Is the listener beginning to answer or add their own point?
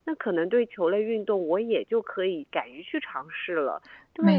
Yes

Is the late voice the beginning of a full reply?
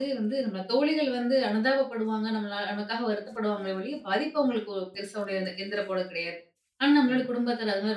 No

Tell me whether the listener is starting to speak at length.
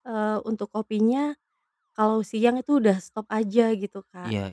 No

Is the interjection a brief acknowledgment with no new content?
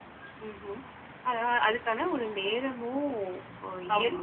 Yes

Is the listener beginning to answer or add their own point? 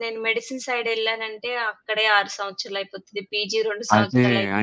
Yes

